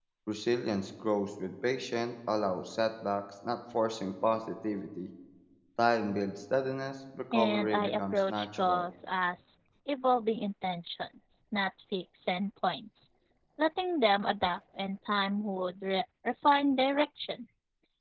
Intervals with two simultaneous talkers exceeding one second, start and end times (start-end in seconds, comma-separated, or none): 7.3-8.9